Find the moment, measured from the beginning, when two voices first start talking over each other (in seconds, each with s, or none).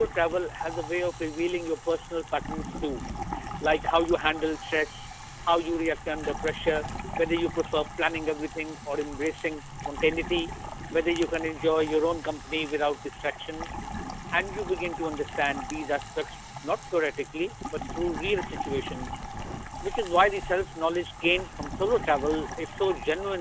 none